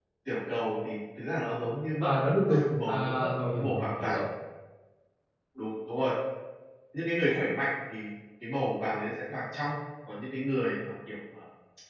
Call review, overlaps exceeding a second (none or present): present